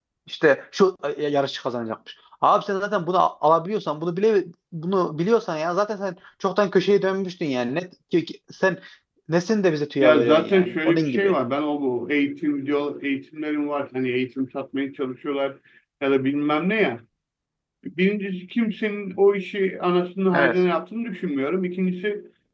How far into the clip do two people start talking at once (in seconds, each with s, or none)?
10.0 s